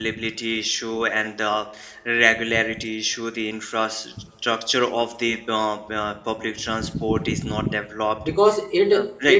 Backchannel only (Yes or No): No